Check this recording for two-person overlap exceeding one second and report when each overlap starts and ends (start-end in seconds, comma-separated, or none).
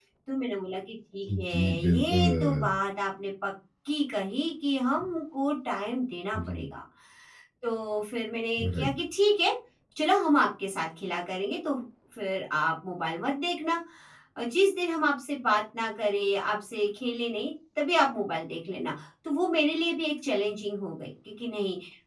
1.4-2.7